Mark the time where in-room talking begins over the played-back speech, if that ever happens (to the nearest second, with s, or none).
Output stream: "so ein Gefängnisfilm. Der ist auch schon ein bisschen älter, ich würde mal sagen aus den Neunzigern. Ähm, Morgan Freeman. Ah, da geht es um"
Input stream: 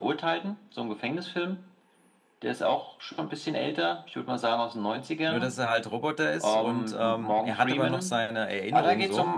5 s